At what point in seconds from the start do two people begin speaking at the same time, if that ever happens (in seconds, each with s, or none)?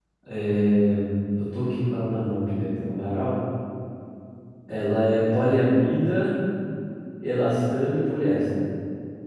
none